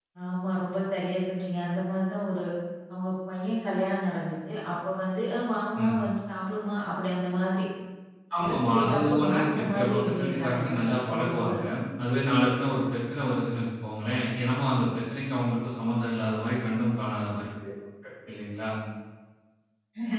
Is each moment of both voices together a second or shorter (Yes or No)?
No